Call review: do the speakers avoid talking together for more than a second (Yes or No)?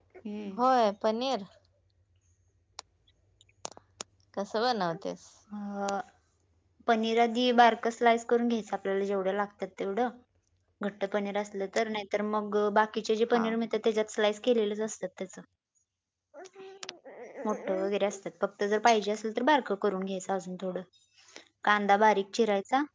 Yes